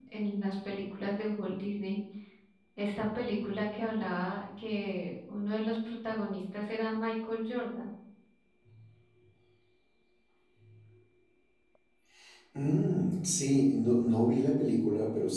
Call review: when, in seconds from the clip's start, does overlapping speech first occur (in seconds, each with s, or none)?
none